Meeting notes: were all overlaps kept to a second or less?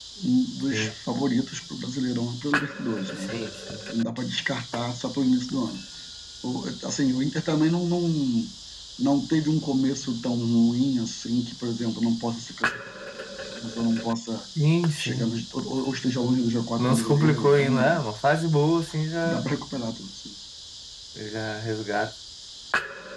No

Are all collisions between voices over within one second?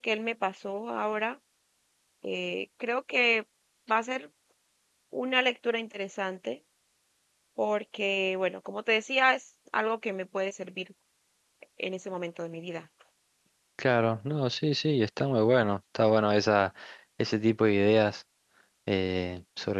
Yes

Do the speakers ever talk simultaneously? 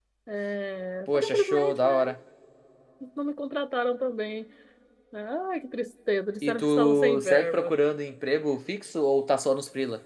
Yes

